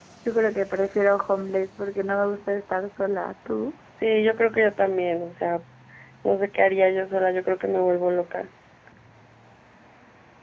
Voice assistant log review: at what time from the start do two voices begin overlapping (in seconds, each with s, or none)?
none